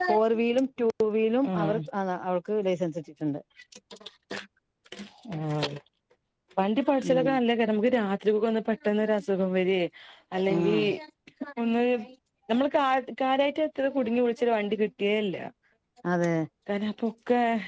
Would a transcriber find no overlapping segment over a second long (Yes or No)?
Yes